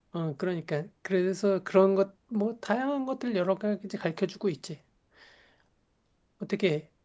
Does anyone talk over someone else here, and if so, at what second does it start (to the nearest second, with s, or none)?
none